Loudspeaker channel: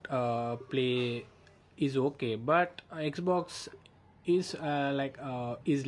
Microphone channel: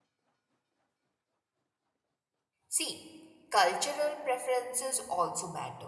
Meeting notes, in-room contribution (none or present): present